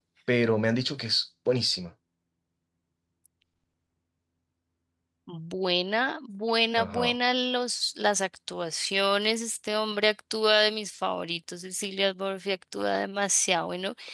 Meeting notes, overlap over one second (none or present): none